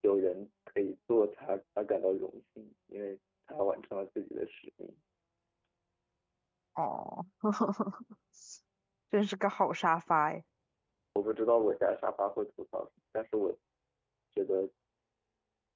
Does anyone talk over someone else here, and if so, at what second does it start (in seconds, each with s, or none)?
none